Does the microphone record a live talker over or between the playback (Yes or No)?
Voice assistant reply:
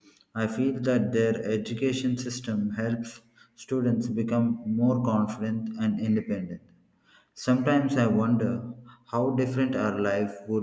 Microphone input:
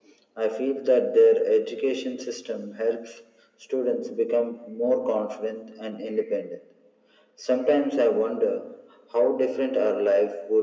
No